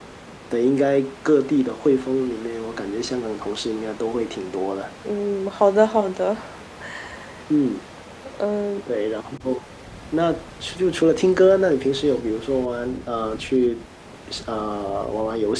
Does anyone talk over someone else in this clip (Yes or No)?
No